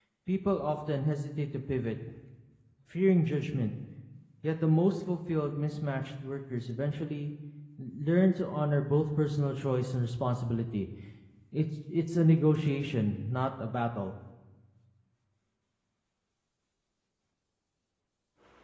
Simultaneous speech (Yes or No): No